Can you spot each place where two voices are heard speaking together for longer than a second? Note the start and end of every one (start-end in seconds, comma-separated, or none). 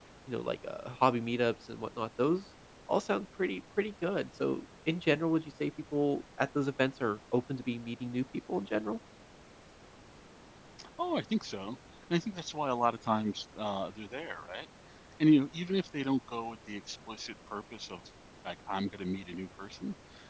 none